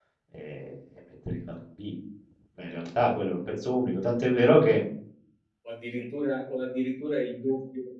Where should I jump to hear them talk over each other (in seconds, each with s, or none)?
none